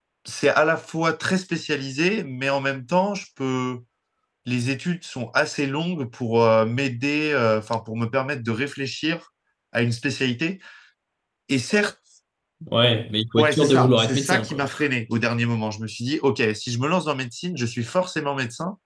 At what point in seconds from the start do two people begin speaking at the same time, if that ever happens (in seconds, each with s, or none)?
13.4 s